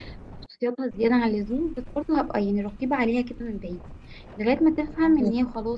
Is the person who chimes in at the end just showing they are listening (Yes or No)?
Yes